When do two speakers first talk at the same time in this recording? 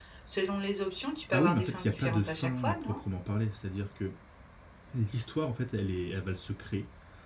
1.3 s

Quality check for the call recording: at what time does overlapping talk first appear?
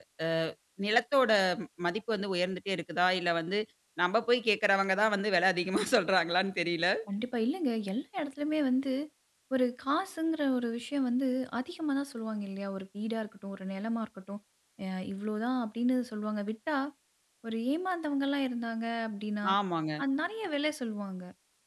none

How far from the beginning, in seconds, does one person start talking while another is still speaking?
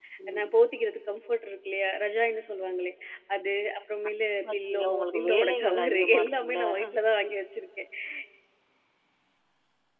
4.4 s

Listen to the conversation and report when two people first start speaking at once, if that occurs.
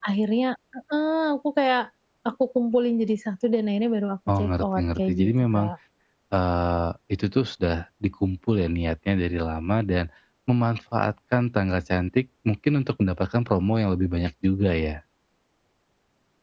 4.3 s

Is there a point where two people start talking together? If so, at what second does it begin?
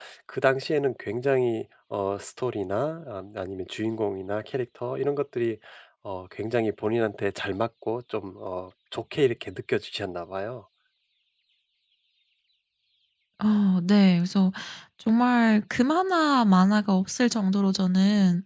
none

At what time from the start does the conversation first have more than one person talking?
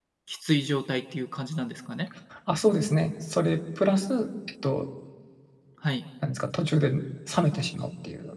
none

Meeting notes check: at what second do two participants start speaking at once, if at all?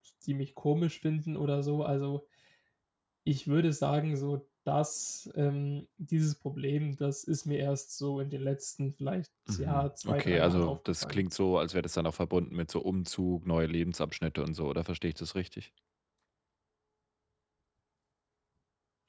9.5 s

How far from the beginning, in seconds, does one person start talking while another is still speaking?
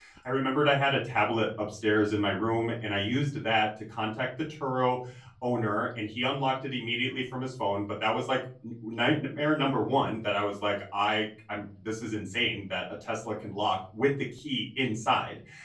none

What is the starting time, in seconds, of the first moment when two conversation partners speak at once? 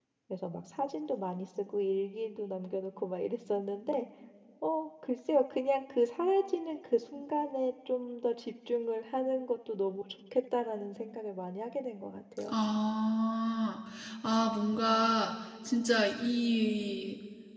none

